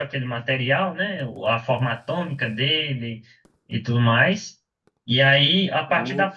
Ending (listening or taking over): listening